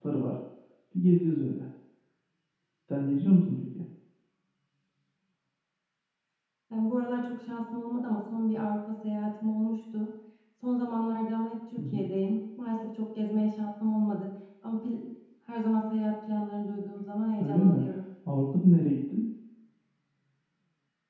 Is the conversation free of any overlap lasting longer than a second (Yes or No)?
Yes